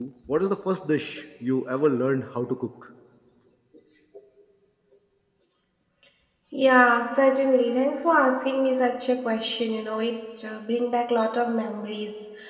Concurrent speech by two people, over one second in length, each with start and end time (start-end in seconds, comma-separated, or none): none